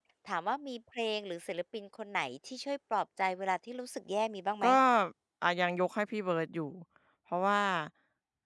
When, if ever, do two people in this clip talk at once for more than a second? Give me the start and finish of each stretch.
none

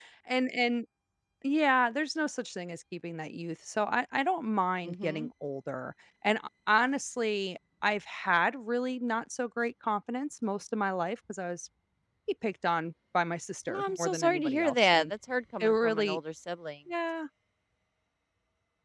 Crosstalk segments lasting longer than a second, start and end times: 13.7-15.1

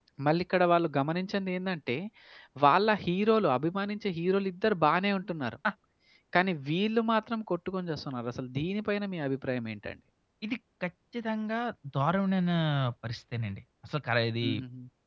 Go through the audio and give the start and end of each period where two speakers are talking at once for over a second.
none

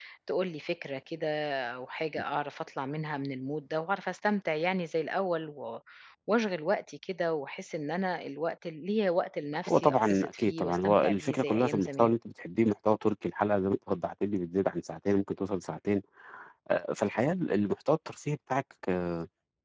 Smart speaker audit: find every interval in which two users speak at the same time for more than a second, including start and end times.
9.7-12.1

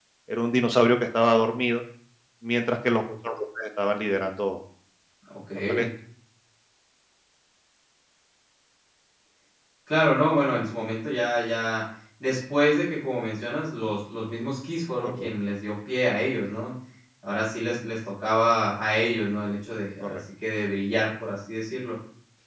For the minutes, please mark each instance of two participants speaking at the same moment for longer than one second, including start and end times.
none

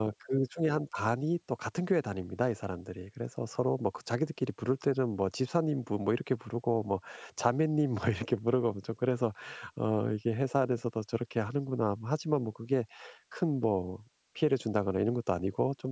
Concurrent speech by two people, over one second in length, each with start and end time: none

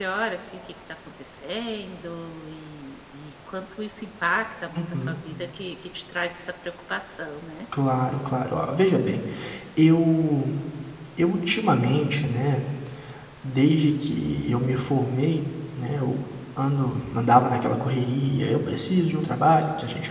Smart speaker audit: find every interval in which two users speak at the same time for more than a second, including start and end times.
none

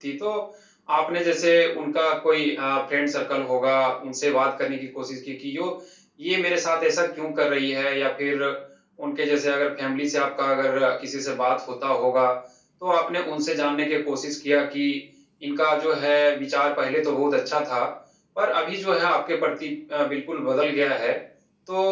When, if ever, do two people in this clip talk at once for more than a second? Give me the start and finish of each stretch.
none

